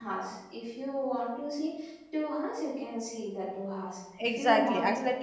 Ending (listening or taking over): taking over